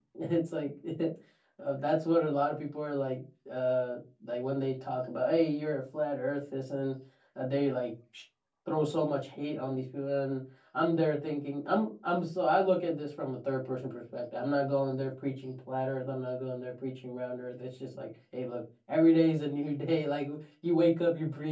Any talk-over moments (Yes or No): No